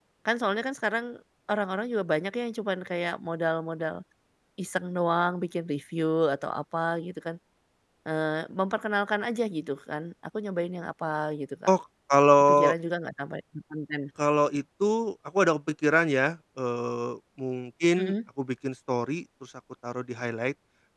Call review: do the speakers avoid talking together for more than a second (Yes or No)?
Yes